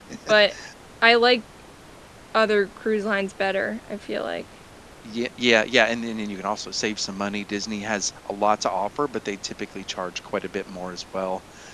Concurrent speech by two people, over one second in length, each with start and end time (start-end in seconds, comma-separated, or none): none